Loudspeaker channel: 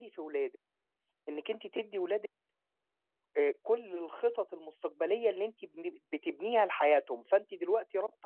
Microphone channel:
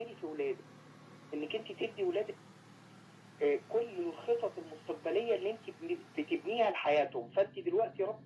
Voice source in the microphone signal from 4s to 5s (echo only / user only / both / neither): echo only